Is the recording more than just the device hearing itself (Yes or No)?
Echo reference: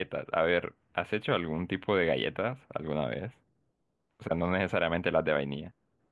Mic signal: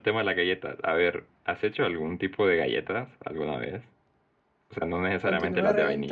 Yes